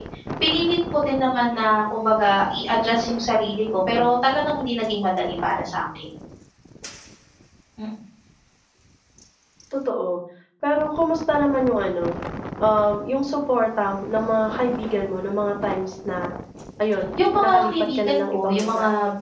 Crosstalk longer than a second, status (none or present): present